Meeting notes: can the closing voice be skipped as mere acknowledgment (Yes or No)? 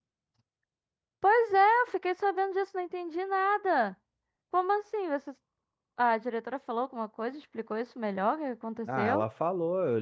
No